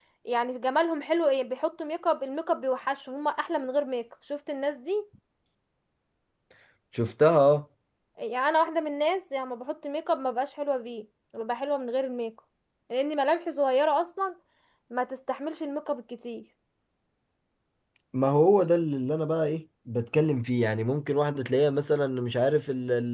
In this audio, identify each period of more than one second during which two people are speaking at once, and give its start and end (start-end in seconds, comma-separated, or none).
none